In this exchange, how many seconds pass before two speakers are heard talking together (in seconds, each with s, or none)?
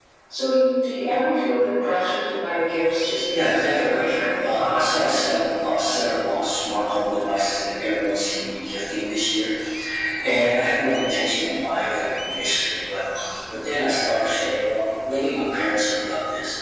3.3 s